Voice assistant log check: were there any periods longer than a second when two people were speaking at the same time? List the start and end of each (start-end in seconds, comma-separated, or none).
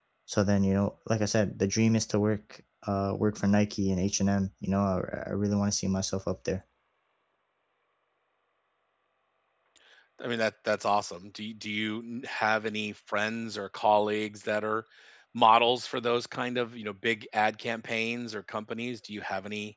none